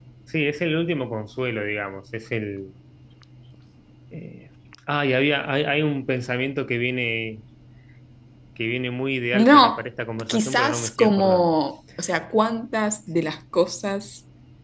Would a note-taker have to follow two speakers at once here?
Yes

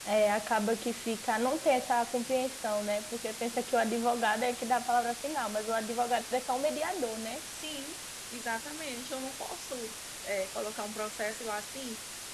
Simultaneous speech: No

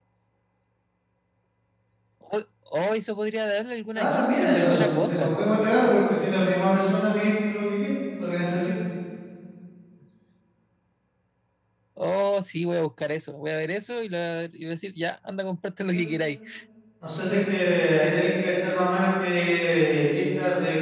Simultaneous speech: Yes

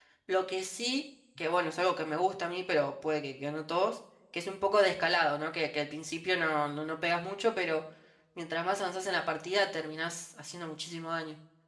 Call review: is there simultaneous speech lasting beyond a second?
No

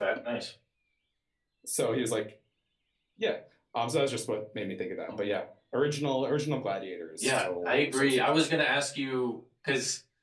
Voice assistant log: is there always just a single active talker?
No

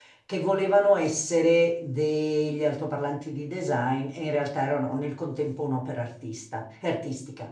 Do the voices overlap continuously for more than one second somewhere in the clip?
No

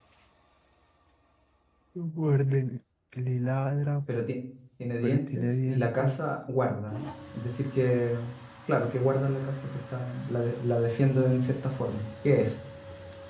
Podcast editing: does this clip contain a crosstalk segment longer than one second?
Yes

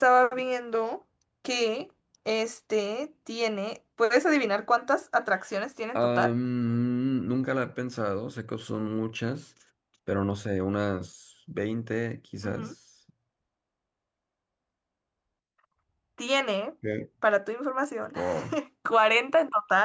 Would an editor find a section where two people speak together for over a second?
No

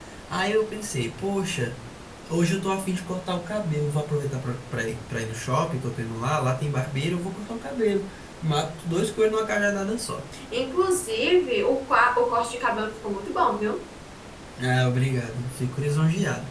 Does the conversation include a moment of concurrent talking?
No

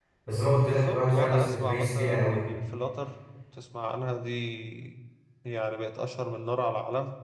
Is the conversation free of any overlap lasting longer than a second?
No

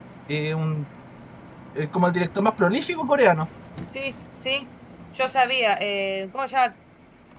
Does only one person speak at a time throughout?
Yes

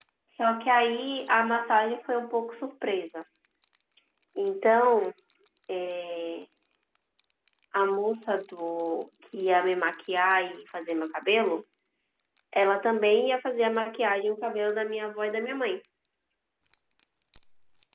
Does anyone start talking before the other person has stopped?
No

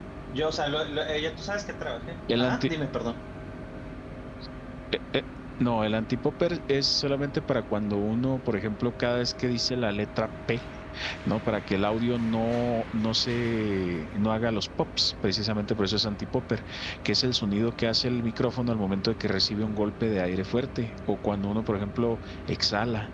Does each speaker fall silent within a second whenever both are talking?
Yes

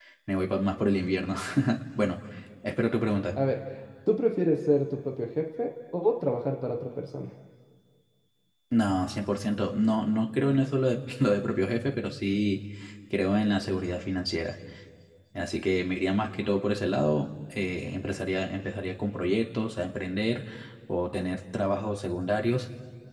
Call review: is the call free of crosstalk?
Yes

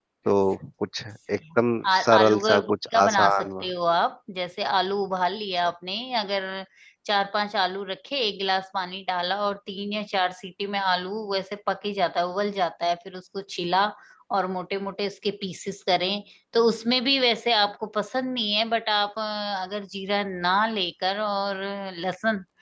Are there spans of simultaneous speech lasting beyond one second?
Yes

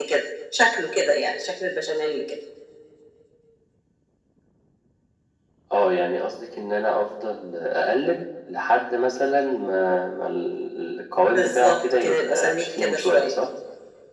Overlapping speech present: Yes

